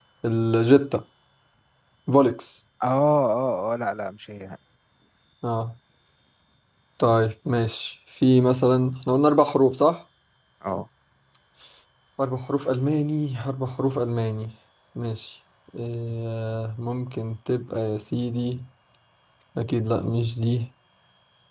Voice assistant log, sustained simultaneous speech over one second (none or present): none